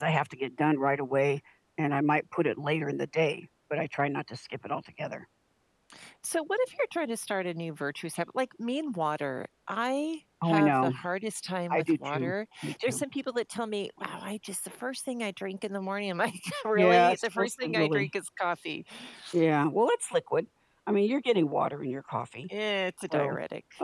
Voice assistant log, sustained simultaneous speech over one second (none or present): present